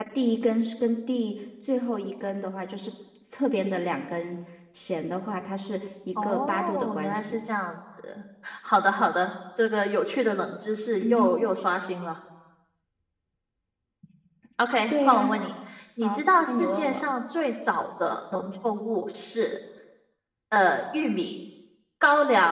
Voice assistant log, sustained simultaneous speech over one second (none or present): present